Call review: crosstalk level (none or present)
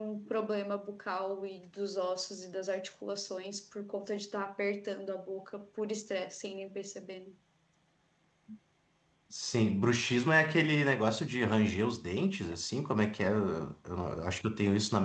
none